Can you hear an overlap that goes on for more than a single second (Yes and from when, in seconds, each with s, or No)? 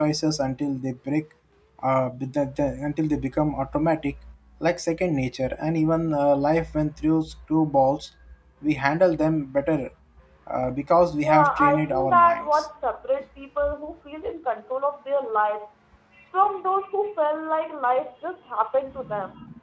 Yes, from 11.2 s